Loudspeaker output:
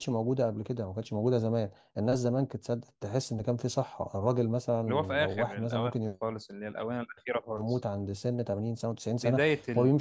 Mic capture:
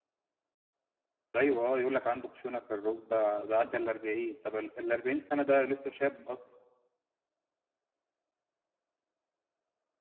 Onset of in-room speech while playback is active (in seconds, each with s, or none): 1.4 s